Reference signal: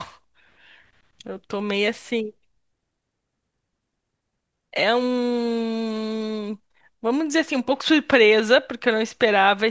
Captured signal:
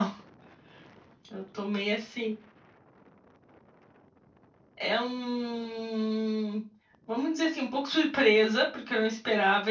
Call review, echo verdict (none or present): present